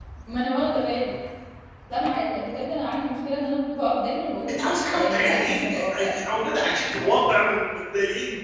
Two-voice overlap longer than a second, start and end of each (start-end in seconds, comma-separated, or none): 4.5-6.1